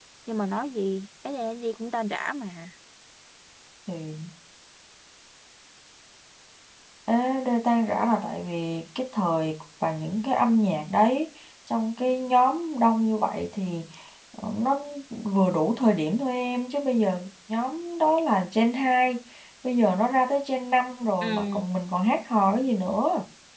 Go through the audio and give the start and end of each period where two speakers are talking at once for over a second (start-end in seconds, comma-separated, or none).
none